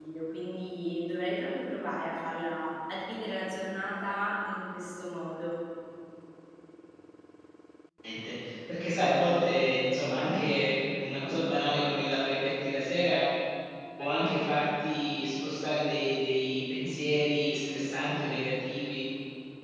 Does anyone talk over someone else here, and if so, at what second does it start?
none

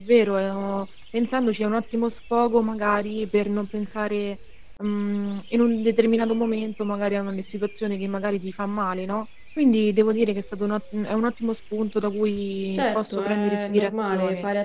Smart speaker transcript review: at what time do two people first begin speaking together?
13 s

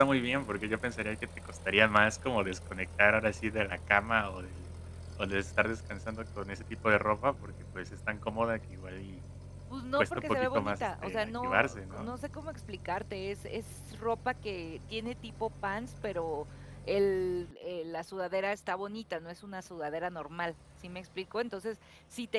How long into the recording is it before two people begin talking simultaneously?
10 s

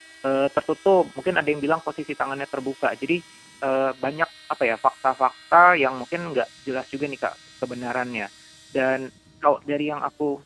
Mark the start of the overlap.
none

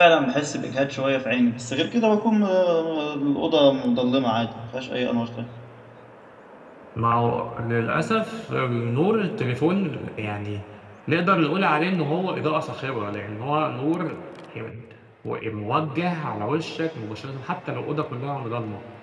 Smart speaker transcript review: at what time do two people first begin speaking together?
none

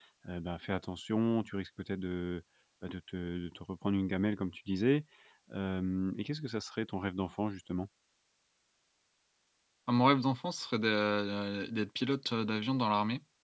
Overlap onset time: none

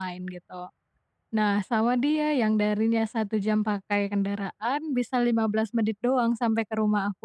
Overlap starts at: none

